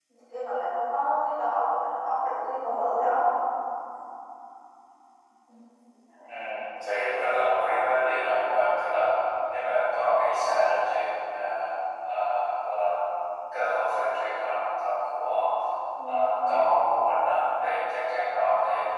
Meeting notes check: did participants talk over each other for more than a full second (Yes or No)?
No